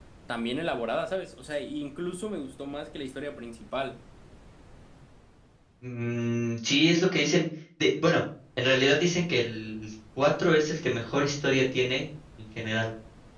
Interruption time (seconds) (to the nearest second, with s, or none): none